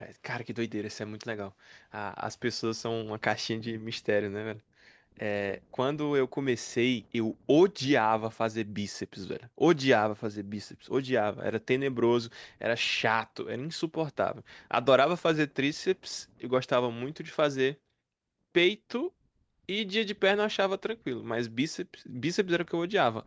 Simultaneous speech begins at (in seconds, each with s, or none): none